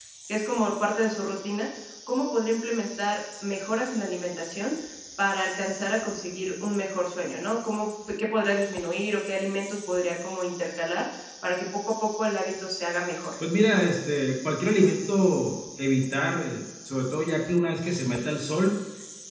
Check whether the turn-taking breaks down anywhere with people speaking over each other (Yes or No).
No